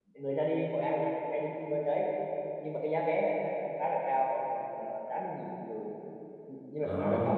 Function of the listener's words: listening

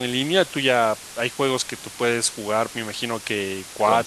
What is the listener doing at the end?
listening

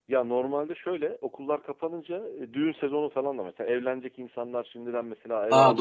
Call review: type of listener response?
listening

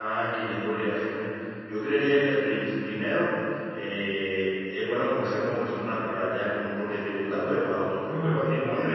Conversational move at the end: listening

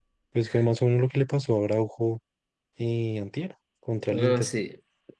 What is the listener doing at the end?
taking over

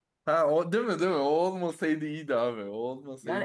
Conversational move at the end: taking over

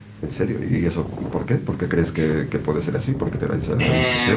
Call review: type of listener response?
taking over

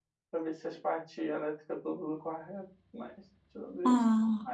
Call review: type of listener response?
listening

